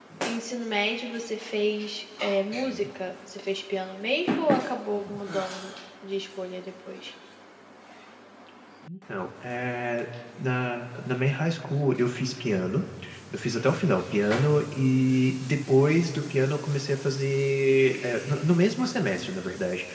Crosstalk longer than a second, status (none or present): none